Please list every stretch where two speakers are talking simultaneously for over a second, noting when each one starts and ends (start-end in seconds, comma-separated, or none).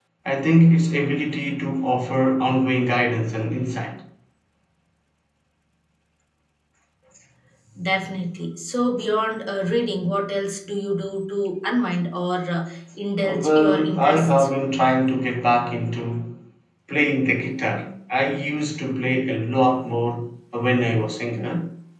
13.2-14.5